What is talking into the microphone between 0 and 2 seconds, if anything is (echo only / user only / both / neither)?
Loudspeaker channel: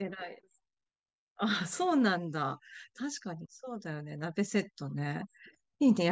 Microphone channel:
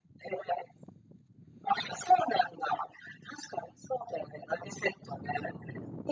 echo only